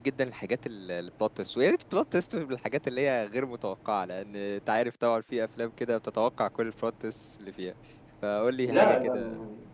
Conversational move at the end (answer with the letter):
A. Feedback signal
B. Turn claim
B